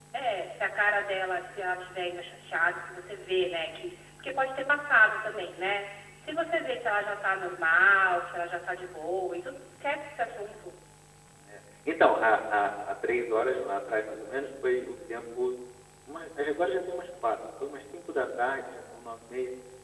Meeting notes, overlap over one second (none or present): none